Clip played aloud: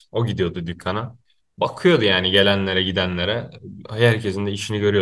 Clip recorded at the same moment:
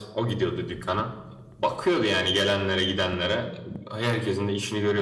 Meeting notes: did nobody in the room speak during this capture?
Yes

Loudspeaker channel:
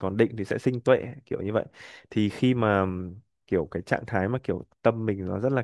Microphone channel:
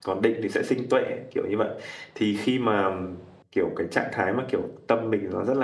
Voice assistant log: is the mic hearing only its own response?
Yes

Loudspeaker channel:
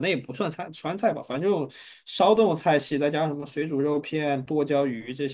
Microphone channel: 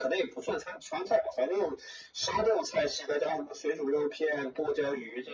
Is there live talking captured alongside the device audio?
No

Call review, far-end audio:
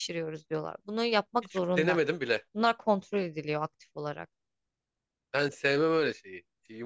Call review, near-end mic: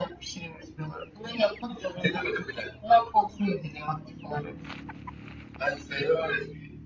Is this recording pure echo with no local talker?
Yes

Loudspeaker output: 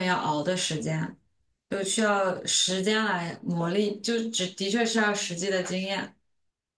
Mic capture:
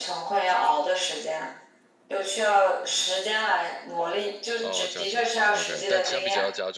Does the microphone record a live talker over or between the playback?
Yes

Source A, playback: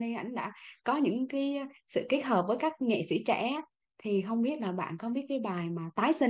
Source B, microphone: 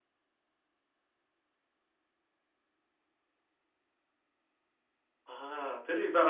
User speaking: Yes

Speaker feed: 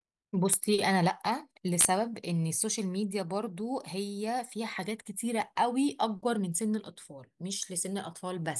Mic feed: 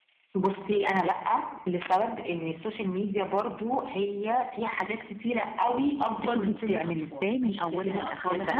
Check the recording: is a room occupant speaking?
Yes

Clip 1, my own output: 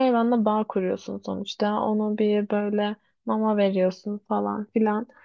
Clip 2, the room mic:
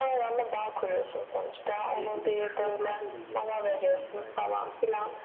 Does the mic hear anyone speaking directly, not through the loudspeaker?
Yes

